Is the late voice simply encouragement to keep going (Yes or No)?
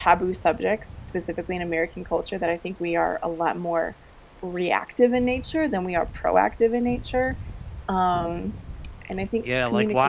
No